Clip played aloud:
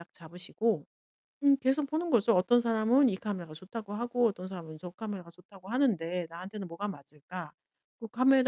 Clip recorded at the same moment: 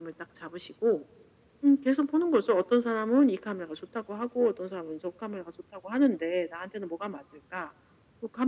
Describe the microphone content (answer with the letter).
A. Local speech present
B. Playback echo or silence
B